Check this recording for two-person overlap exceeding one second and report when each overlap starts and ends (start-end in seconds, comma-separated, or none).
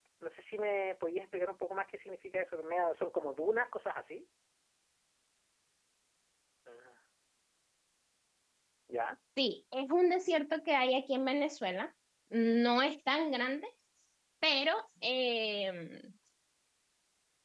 none